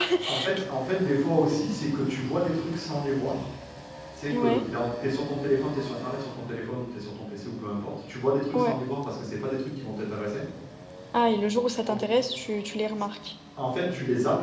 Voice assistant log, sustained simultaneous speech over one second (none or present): none